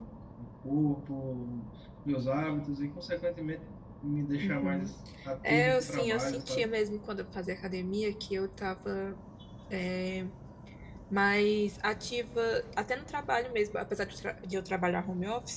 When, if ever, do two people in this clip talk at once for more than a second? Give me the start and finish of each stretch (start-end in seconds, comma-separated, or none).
5.5-6.7